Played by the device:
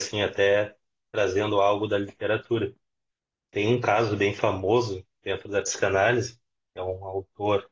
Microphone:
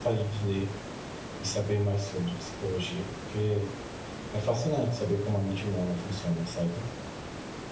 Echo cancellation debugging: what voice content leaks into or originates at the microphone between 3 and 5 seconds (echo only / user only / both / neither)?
user only